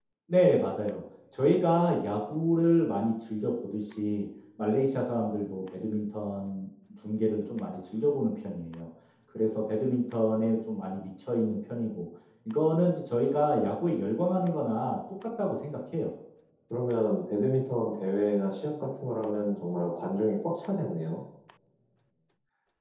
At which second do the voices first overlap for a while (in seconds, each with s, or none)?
none